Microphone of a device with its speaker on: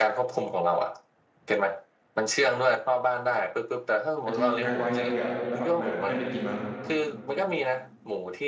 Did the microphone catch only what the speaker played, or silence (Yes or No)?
No